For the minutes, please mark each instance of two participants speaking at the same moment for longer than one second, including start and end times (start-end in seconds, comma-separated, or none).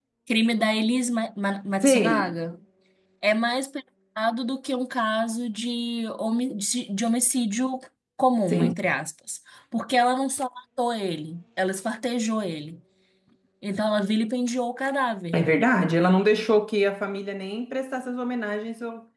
none